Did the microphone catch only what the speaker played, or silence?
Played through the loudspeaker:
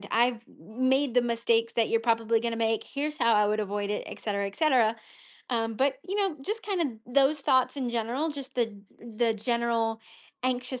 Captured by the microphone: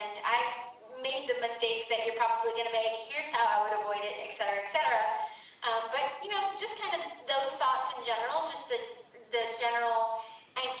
Yes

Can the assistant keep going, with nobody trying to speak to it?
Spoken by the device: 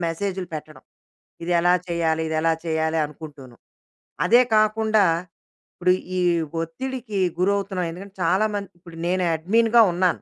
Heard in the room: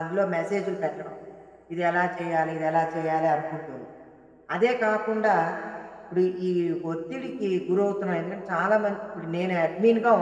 Yes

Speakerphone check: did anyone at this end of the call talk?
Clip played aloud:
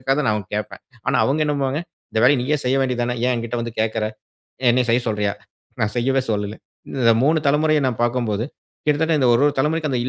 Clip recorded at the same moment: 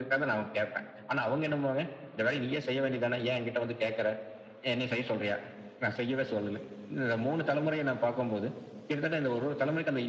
No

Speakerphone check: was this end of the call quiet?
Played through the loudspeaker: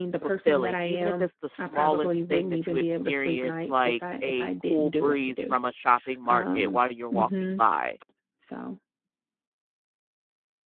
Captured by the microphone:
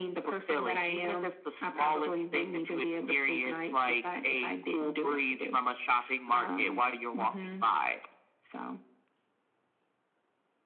Yes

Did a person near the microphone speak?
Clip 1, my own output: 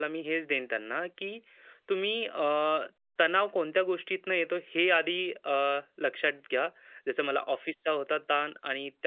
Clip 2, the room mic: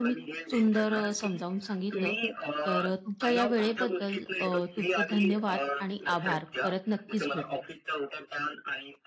Yes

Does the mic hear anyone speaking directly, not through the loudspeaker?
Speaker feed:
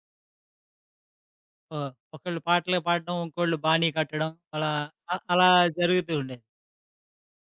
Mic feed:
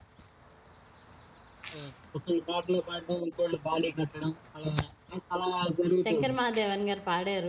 Yes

